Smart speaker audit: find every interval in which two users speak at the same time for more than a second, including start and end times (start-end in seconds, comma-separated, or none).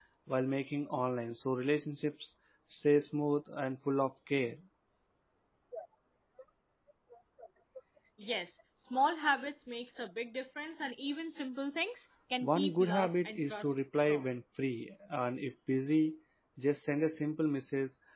12.4-14.2